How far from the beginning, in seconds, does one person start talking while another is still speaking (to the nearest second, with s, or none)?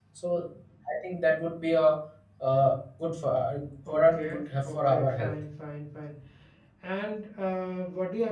4 s